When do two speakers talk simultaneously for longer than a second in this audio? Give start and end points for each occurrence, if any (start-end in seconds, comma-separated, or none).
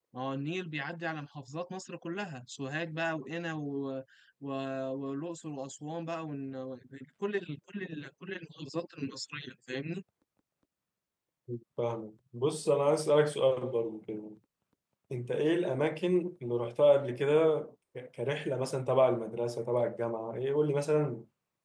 none